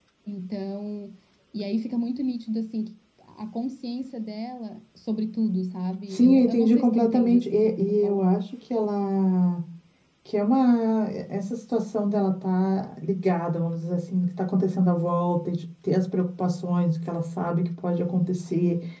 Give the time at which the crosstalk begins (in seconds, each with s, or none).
6.1 s